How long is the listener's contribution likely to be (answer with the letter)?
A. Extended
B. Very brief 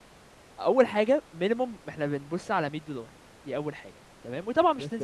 B